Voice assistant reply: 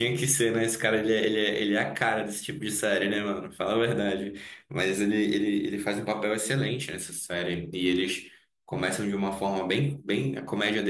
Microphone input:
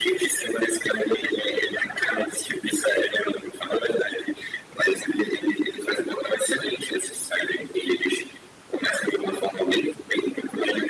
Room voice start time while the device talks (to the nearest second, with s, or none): none